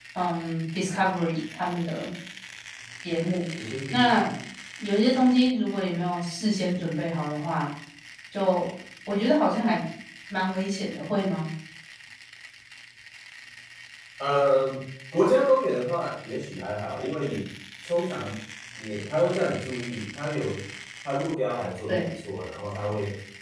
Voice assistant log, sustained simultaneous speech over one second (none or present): none